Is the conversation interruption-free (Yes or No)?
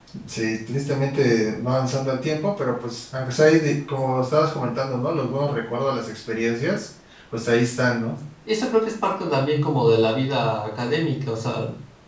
Yes